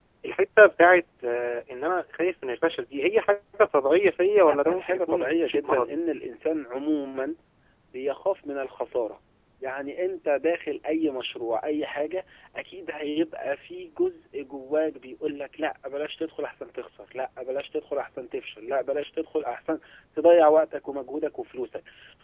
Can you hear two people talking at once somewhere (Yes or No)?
Yes